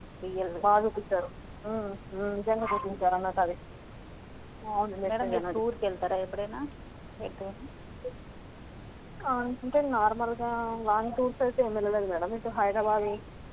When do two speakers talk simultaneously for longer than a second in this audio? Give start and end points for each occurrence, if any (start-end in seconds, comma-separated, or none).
none